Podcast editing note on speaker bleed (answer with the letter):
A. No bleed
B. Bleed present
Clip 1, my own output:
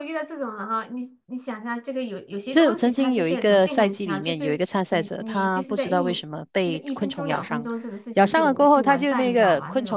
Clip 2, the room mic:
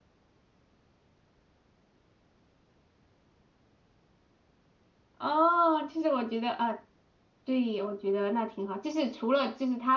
A